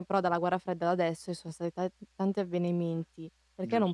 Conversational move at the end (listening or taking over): listening